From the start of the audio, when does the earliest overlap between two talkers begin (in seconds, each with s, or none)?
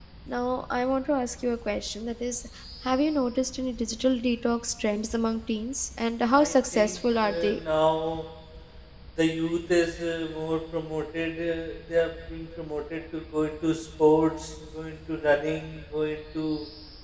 6.3 s